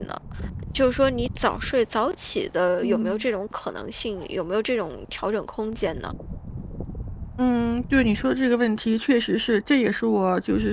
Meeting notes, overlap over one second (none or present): none